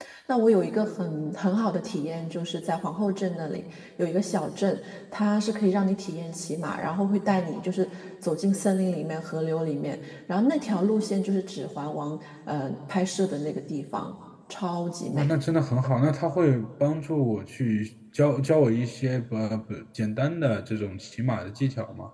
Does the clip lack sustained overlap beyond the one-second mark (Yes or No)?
Yes